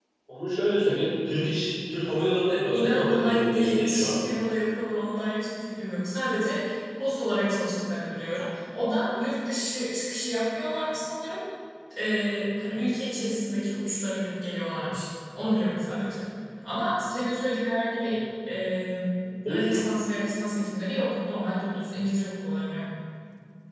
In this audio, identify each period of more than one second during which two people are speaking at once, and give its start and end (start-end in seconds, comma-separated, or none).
2.7-4.1